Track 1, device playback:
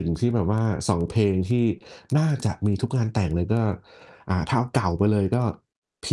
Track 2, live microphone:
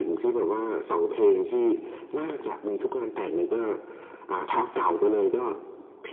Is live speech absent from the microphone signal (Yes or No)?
Yes